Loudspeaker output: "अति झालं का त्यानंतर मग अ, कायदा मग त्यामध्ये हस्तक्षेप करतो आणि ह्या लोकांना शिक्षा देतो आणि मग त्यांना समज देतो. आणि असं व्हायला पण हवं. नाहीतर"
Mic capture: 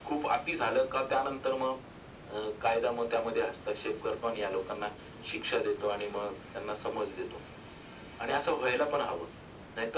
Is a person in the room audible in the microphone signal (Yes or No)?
No